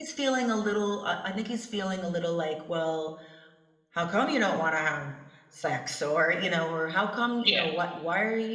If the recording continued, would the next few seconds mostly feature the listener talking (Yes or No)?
No